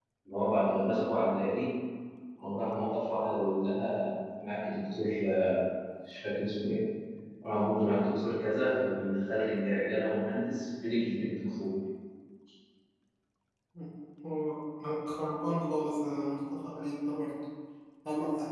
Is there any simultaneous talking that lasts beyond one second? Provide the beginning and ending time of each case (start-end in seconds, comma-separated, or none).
none